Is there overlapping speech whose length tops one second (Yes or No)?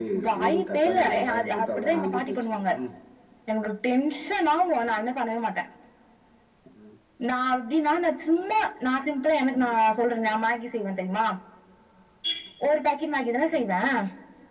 Yes